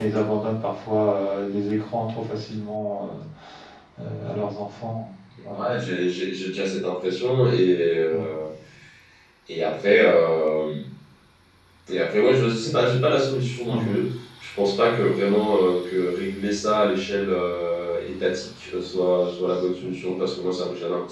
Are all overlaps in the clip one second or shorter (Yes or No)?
Yes